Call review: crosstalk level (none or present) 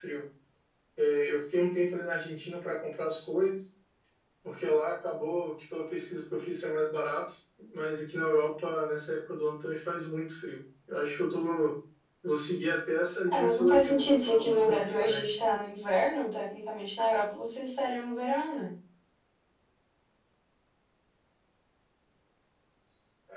present